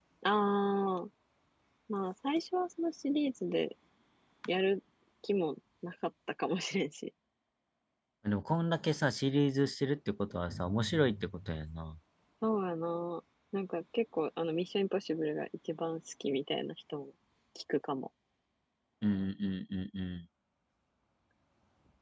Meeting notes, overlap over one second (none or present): none